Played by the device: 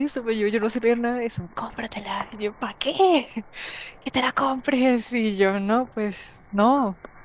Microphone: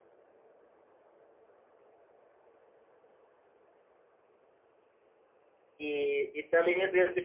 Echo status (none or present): none